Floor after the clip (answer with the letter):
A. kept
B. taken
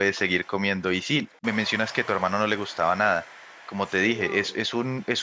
A